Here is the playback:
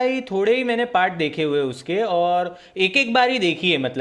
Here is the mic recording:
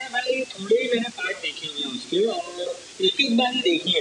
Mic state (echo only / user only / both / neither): echo only